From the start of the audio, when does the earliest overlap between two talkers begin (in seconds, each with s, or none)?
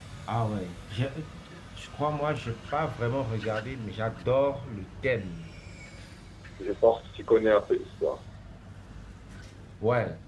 none